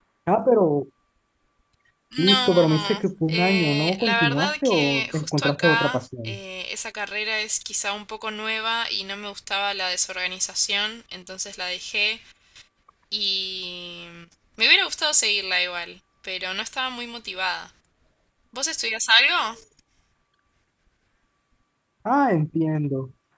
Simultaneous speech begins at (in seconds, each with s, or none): 2.2 s